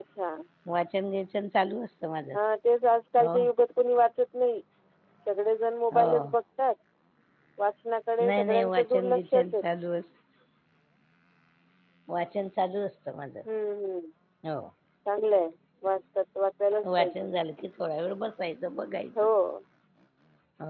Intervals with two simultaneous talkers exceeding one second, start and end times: 8.2-9.6

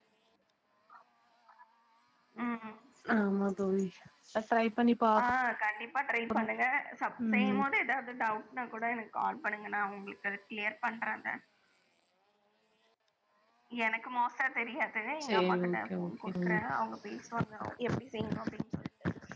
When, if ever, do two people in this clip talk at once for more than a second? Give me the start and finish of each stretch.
15.2-16.6

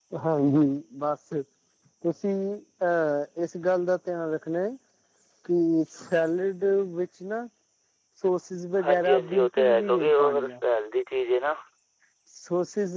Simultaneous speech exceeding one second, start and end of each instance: 8.8-10.5

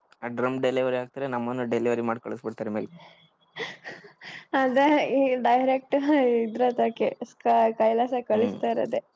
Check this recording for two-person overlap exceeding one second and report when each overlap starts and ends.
none

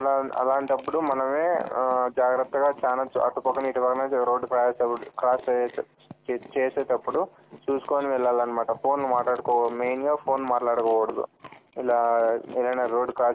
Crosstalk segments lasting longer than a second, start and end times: none

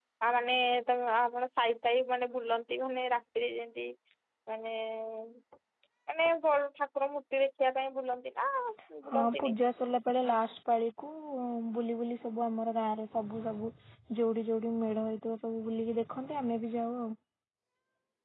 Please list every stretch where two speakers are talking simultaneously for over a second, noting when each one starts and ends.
none

